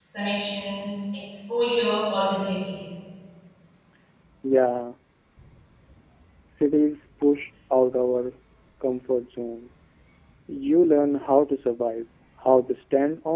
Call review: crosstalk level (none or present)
none